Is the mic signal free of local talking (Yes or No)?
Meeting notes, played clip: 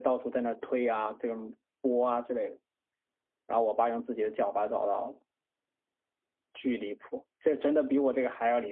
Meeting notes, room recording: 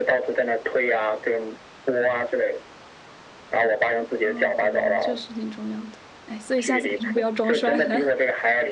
No